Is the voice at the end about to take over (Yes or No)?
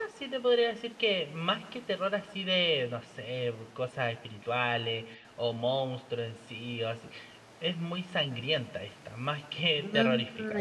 No